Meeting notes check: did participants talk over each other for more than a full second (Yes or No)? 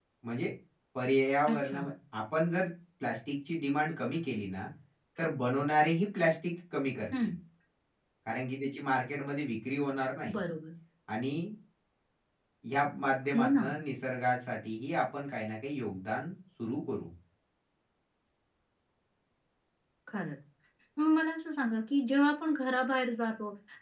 No